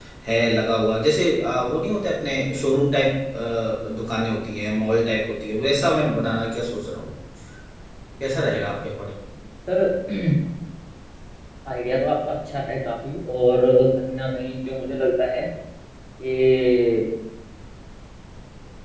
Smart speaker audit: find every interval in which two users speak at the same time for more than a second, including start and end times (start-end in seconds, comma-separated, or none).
none